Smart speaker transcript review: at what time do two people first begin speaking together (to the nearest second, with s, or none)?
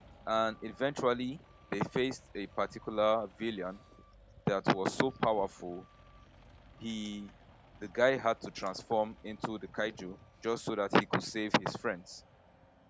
none